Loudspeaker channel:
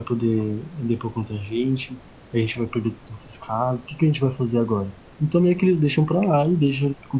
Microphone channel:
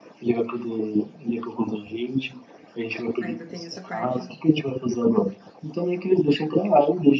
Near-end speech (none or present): present